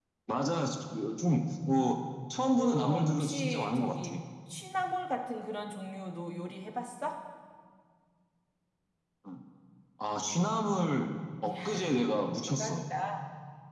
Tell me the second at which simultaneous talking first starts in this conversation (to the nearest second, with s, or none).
3 s